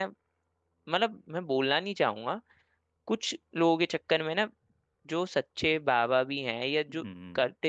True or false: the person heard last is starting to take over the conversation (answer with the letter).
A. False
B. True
A